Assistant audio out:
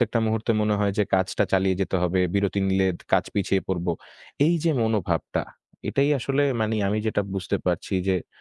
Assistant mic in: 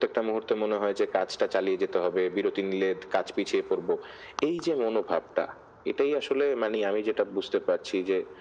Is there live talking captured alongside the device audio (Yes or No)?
No